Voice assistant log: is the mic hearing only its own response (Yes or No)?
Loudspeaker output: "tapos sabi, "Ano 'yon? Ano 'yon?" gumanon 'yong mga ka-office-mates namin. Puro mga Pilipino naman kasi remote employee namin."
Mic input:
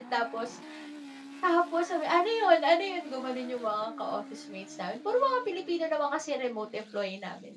Yes